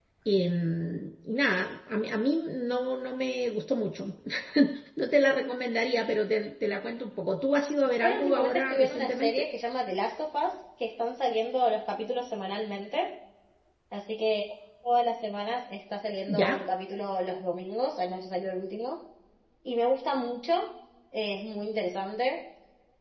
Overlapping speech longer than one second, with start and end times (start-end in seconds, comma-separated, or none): 8.0-9.5